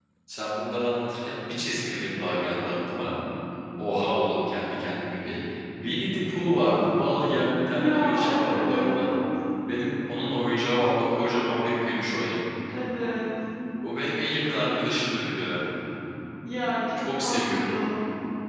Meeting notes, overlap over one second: present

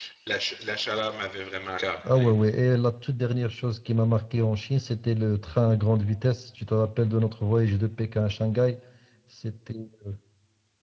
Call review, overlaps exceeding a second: none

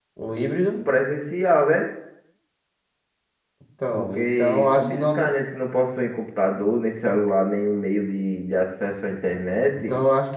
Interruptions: present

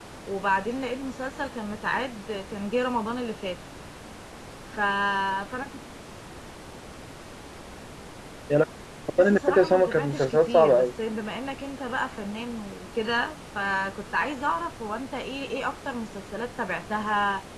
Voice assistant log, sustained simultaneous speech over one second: present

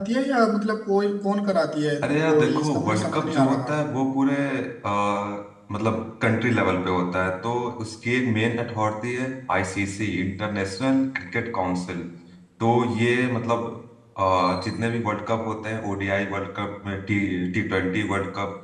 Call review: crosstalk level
present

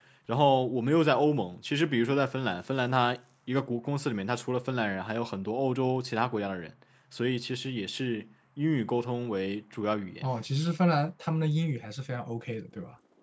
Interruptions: none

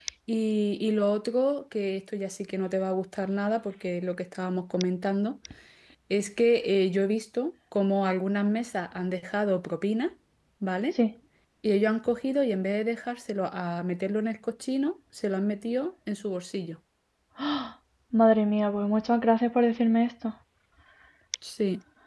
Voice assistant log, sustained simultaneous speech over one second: none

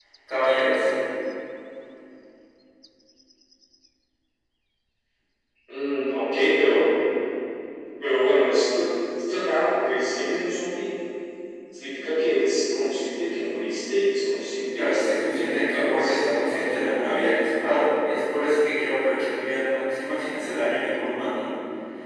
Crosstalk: present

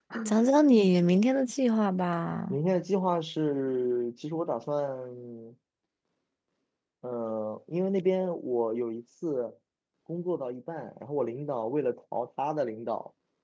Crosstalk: none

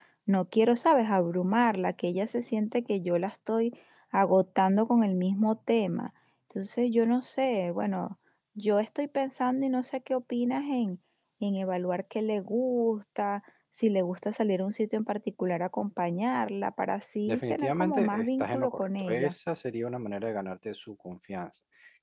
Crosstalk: present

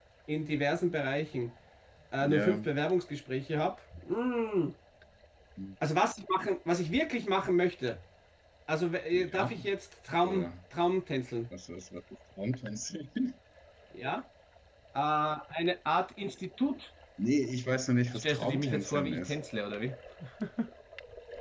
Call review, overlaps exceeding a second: present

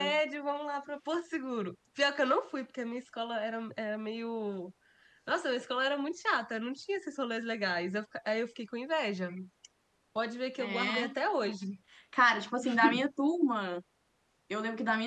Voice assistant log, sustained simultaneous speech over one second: none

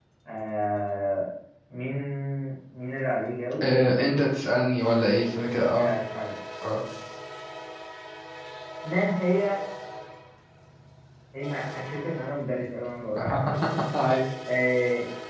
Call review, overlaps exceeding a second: none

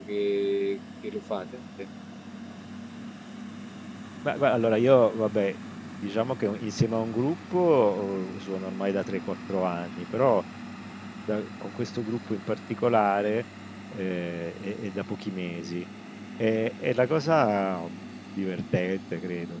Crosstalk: none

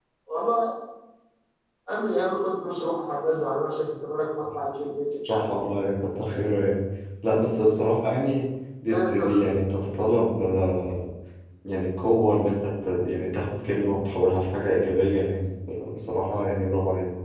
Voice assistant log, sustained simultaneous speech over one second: none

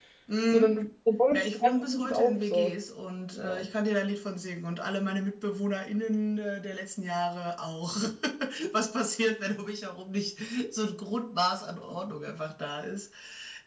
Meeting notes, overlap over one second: present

